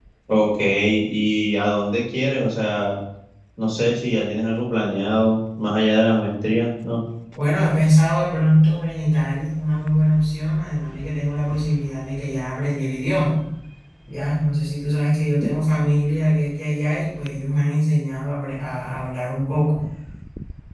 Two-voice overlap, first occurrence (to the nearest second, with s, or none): none